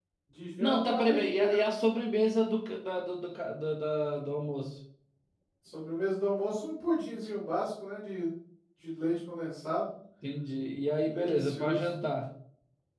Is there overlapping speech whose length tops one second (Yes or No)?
Yes